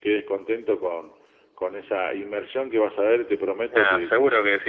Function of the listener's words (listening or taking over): taking over